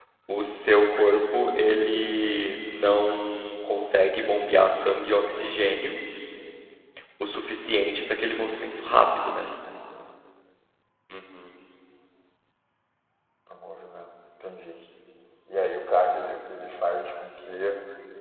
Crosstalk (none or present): none